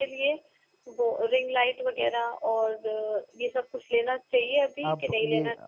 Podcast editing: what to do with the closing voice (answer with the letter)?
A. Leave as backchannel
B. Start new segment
B